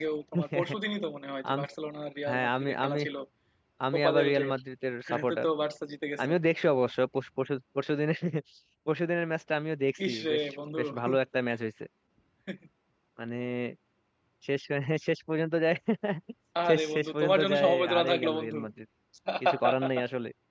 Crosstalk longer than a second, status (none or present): present